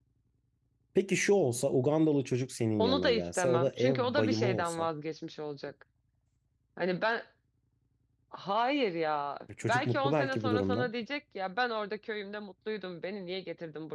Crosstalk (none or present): present